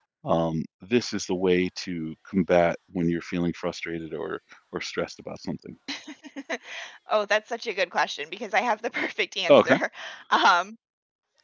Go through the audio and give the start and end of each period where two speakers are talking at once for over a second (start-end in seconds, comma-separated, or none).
none